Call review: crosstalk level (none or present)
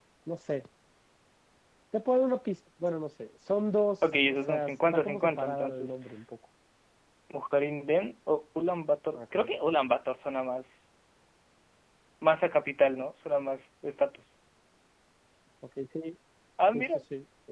present